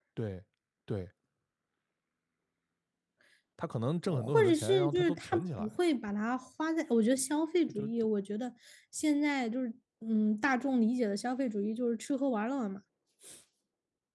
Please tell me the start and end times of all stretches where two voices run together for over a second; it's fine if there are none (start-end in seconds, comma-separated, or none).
4.1-5.7